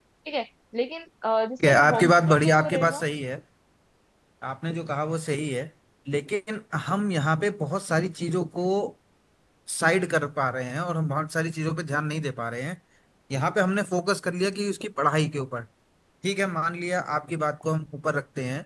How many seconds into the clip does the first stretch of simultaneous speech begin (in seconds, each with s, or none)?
1.6 s